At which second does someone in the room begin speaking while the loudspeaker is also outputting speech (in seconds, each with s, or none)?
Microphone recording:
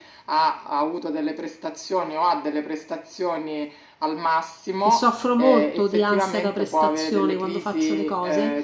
4.8 s